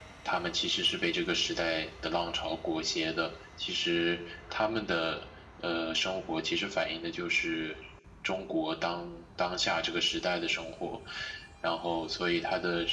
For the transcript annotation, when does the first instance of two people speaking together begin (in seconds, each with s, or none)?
none